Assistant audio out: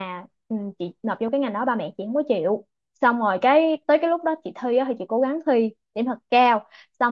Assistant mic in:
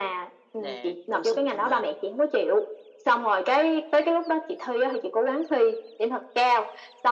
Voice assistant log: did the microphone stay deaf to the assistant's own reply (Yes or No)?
No